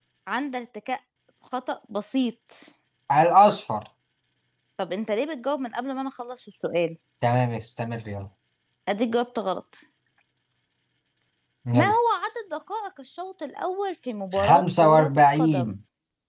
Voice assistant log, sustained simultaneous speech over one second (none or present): present